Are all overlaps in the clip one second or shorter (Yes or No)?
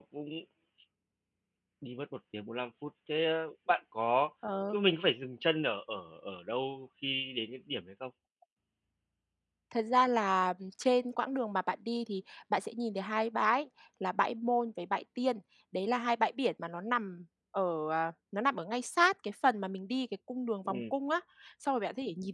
Yes